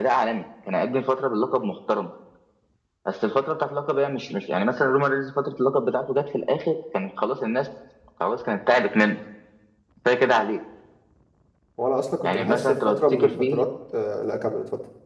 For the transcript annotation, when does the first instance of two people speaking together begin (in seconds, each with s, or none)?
12.2 s